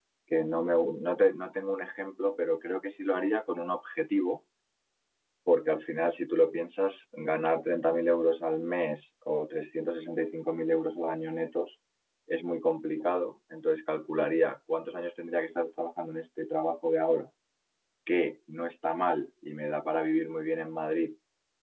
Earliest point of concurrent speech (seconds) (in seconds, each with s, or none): none